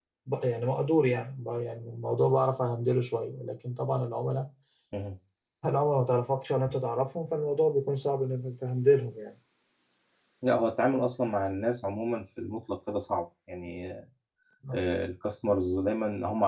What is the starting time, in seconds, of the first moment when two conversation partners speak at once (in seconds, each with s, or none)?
none